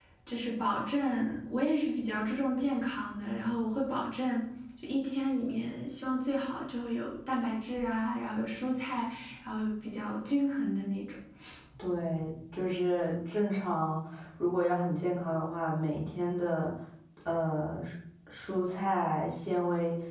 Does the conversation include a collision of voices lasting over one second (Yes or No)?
No